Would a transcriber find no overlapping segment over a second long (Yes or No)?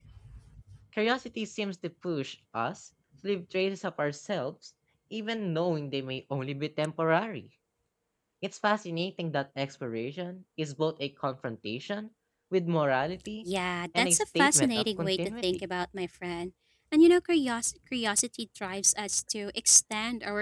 No